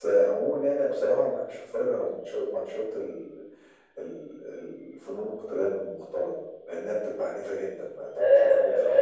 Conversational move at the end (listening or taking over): taking over